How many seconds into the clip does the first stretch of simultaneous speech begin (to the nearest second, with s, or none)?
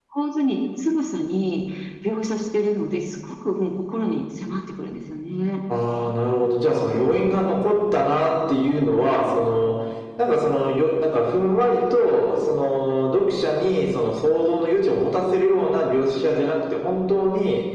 none